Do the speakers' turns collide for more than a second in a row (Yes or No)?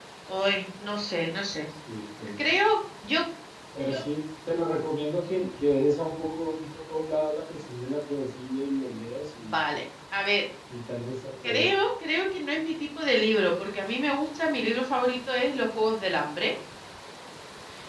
No